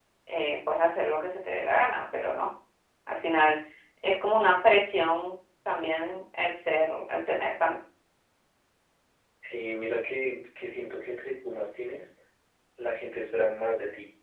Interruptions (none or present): none